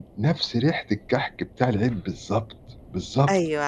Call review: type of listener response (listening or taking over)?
taking over